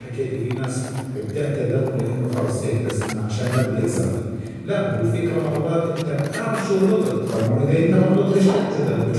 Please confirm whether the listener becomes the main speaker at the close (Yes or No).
No